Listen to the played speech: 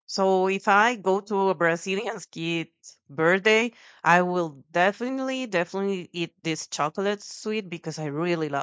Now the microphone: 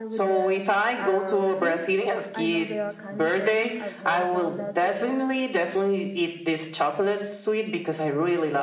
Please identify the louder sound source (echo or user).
echo